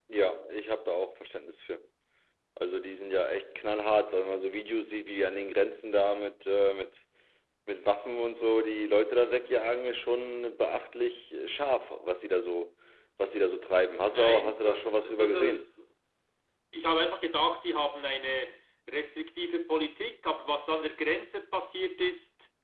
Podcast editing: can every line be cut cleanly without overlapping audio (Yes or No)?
No